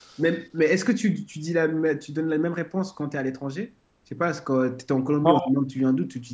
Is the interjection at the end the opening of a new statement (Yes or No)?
No